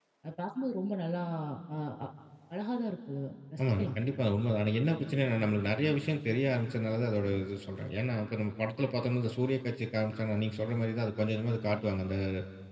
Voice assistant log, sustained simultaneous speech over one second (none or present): none